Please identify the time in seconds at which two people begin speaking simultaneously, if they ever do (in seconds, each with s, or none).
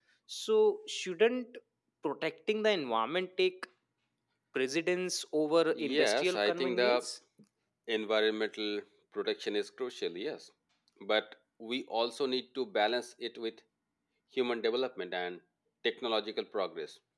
5.7 s